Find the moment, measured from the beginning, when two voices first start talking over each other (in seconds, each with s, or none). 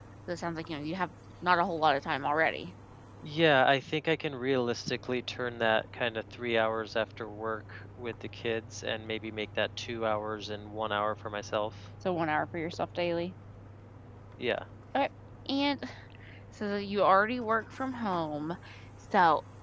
none